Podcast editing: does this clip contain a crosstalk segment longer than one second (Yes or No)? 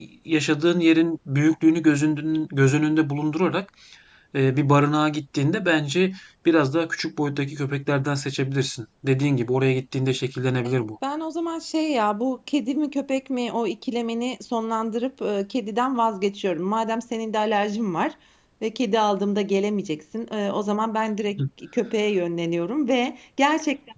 No